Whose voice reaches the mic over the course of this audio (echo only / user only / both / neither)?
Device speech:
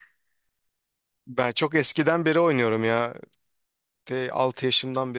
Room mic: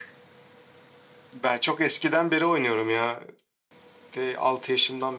echo only